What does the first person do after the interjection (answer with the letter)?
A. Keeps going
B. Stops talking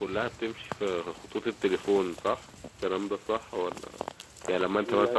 A